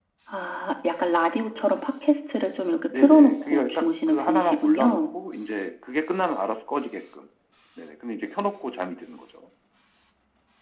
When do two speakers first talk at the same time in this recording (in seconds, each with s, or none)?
2.9 s